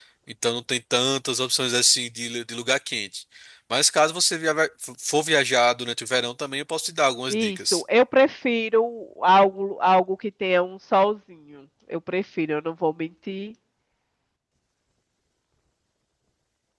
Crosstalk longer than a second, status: none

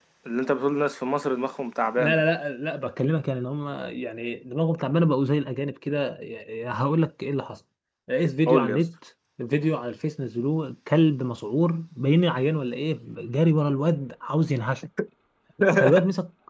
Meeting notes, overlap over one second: none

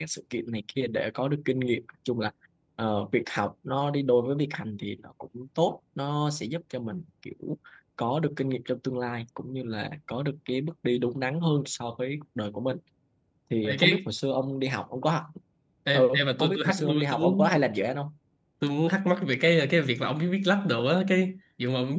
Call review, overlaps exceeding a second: present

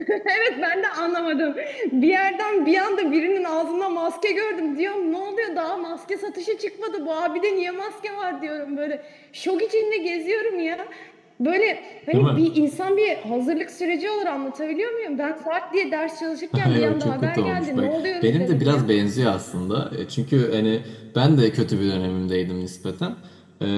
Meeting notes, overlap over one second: present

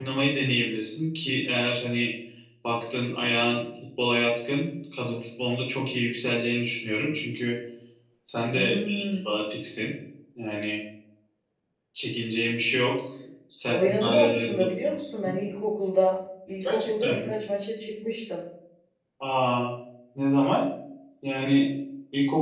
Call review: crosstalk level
present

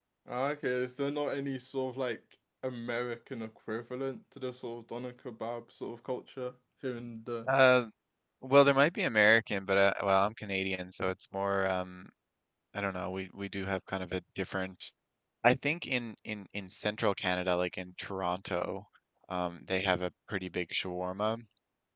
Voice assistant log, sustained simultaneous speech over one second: none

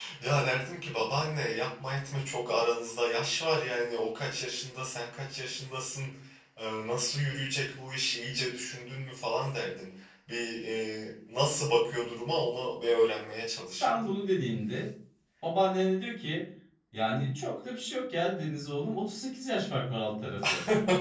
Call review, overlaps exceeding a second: none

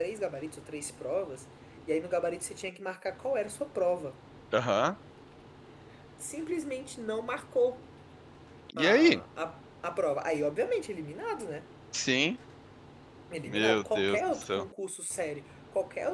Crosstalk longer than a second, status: present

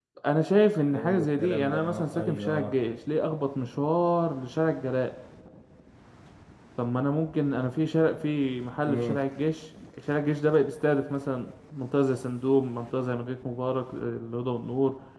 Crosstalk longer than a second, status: present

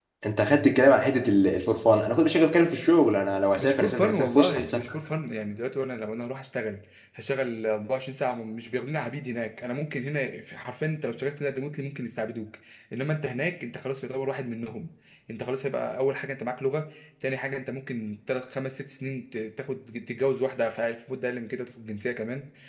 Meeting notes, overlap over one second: present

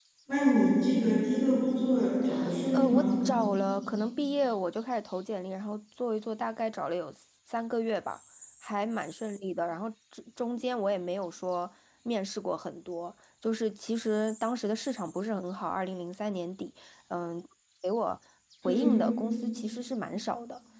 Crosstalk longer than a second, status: none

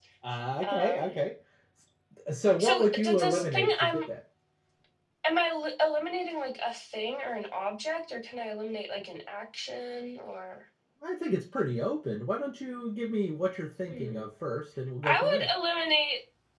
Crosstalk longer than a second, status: present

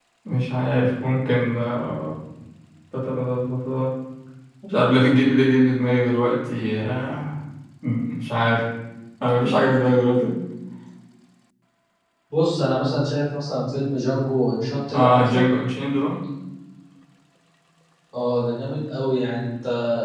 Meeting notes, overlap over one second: none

